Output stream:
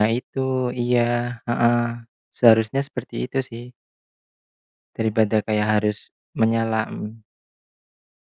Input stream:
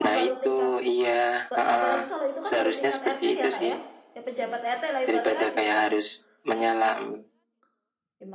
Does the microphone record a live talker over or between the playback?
Yes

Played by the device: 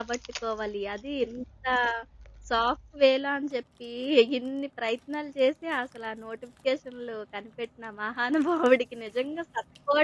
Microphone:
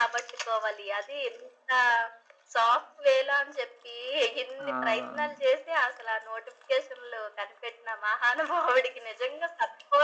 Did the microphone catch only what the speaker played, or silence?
No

